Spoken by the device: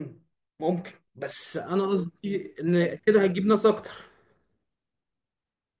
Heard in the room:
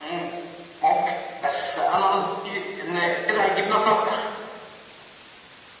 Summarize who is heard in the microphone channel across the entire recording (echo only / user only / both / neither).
echo only